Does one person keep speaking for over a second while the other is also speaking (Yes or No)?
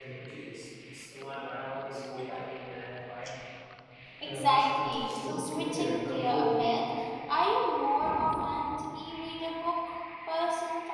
Yes